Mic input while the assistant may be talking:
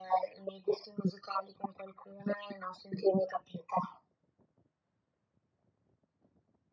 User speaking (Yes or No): No